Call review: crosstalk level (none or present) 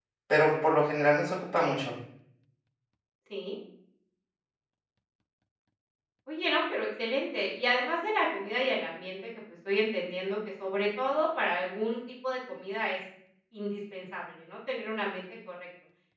none